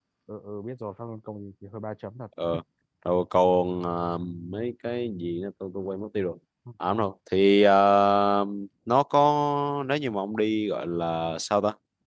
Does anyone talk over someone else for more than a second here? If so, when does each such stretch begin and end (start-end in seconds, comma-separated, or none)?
none